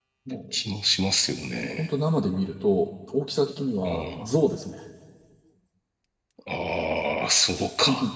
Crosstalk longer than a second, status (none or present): none